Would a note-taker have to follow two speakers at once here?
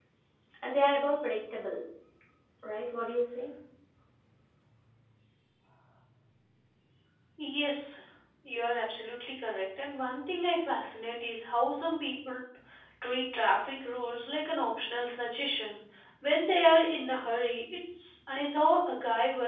No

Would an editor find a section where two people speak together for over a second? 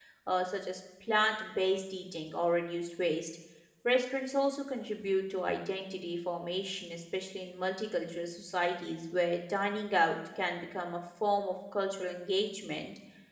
No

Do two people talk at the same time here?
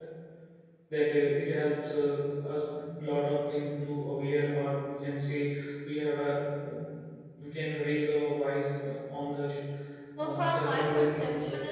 Yes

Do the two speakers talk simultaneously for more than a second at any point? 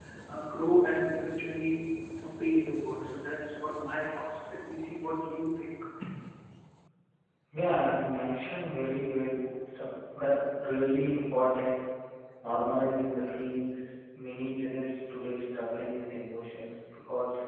No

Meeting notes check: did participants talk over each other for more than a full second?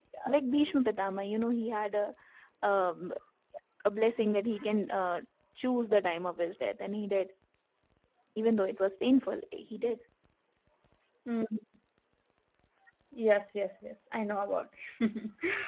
No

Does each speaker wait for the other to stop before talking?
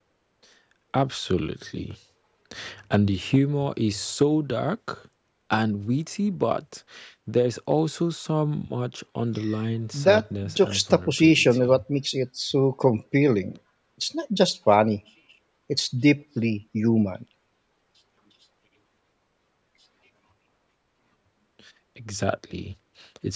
No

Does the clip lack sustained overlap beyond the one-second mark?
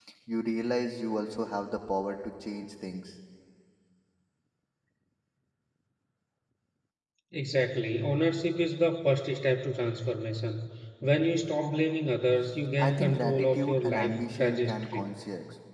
No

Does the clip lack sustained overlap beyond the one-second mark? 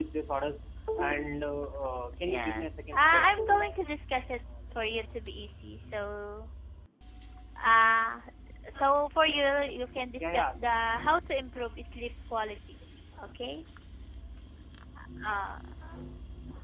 No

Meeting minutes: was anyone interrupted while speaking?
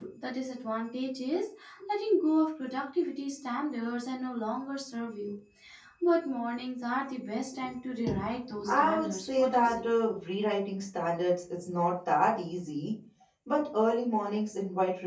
Yes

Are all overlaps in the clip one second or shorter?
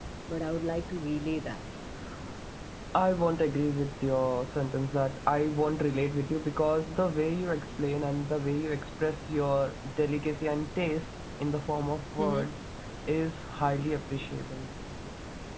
Yes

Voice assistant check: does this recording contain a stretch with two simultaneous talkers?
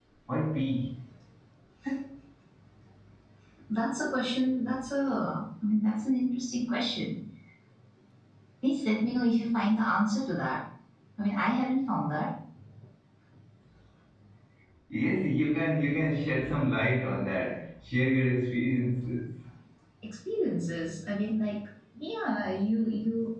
No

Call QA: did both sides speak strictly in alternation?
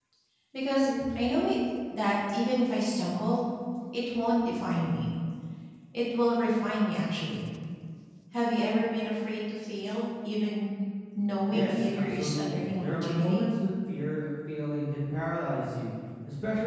No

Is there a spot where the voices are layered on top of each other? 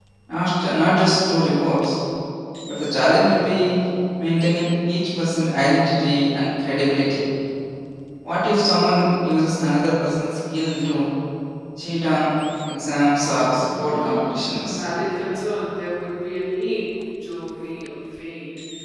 Yes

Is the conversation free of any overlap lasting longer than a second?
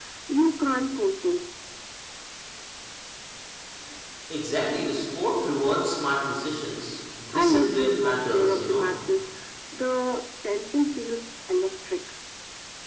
No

